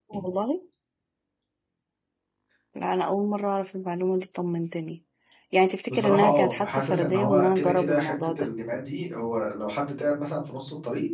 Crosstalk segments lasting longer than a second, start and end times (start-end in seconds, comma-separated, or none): 5.9-8.5